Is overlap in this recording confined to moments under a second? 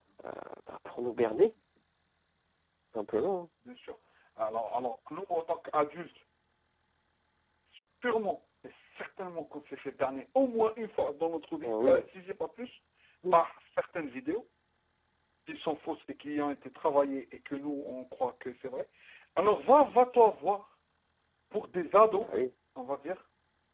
Yes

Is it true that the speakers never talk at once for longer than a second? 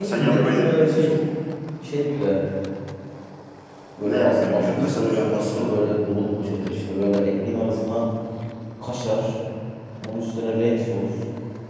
No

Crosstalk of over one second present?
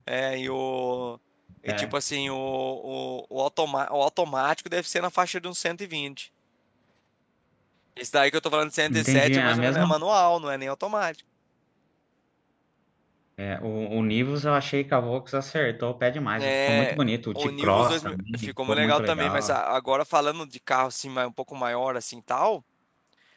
Yes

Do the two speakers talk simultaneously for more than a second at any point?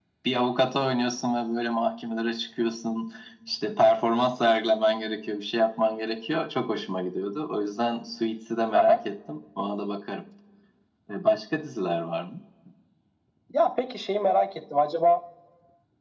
No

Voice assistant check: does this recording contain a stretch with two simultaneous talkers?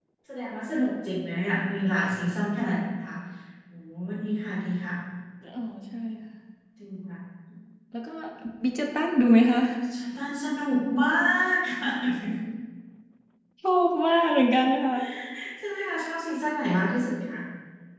No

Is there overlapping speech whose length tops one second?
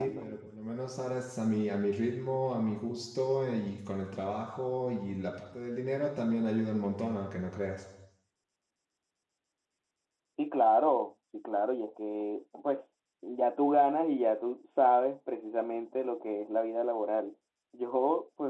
No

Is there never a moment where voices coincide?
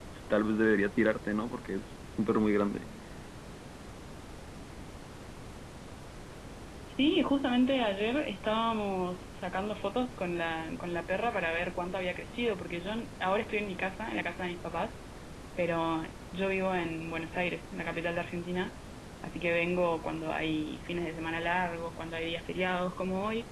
Yes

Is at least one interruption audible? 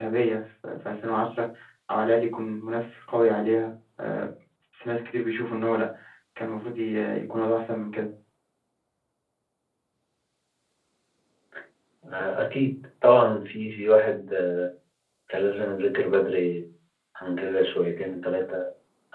No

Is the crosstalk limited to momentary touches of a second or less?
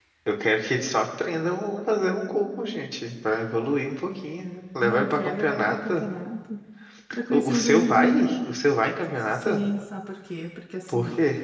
No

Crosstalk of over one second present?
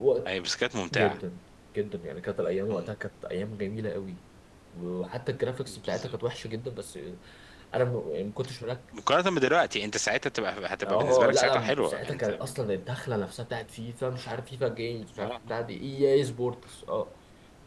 Yes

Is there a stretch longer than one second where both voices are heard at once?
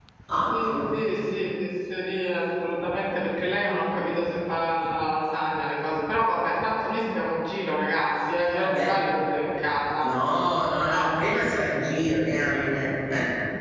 No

